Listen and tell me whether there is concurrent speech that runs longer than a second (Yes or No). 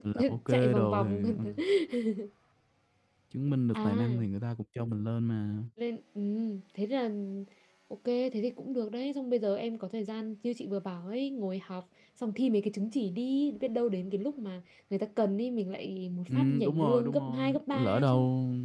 Yes